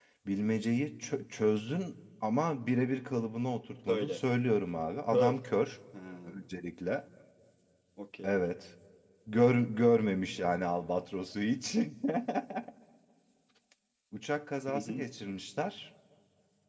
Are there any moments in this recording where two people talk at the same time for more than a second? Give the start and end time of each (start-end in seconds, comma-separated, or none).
none